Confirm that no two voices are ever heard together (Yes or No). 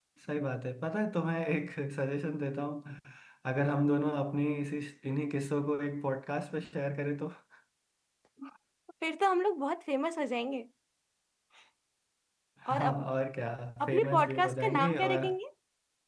No